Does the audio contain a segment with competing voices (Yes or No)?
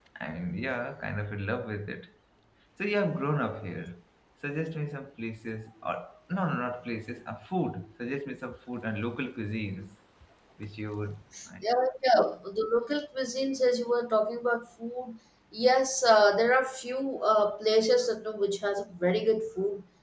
No